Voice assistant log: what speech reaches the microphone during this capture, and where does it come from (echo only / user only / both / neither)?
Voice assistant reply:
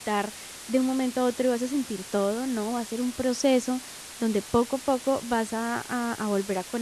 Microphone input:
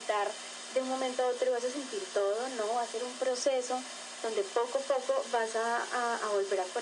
echo only